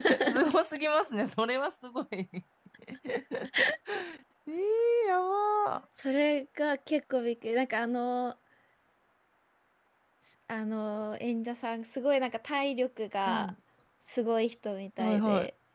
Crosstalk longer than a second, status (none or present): none